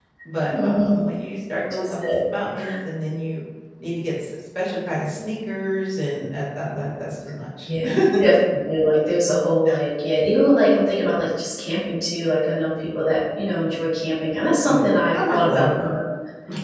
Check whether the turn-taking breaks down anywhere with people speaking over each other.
Yes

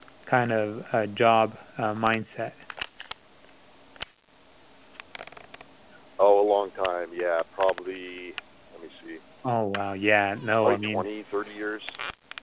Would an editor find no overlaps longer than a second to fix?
Yes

